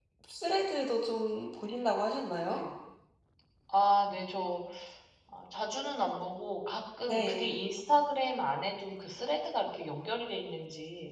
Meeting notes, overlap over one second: none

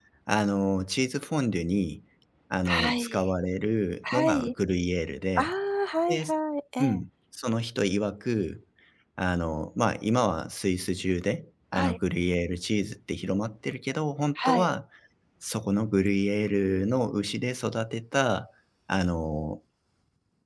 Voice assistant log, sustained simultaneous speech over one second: none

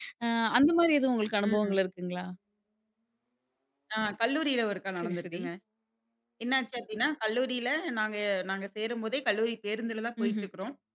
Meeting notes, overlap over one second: none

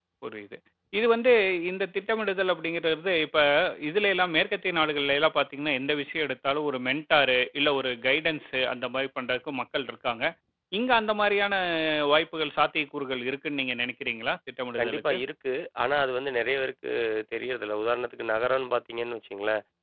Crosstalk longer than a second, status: none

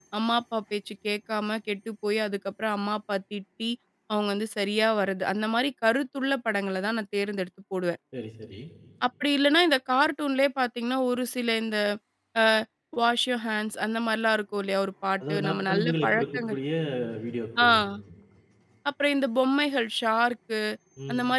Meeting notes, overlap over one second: present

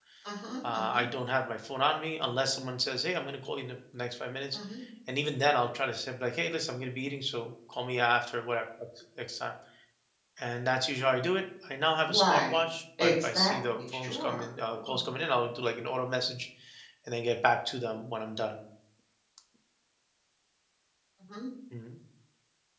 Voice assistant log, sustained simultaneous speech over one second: present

